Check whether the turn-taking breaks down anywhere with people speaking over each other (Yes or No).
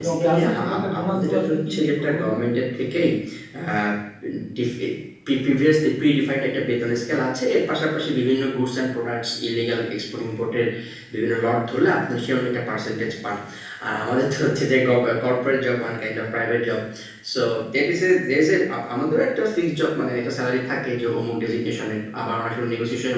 Yes